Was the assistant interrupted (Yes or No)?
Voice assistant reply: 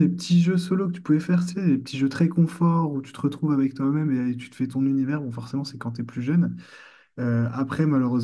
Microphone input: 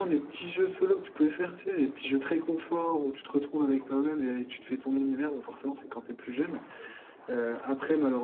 No